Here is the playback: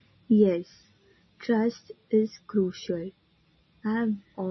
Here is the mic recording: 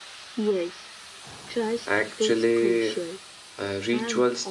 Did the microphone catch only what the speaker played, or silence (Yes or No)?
No